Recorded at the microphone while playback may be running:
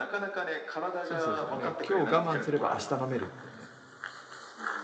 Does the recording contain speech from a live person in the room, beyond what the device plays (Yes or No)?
Yes